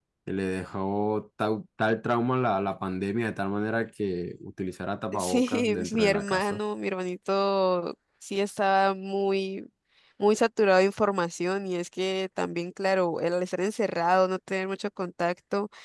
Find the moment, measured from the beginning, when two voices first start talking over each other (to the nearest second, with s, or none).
5 s